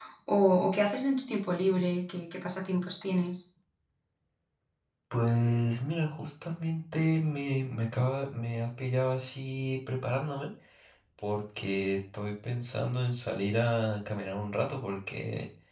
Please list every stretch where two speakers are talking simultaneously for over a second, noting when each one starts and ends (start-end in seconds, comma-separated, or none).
none